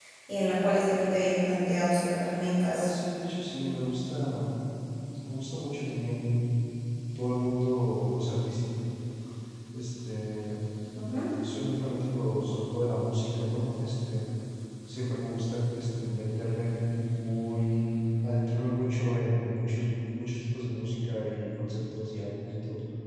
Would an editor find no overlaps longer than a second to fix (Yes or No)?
Yes